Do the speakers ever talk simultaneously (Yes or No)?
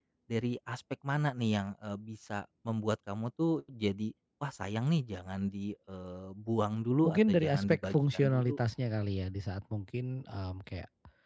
Yes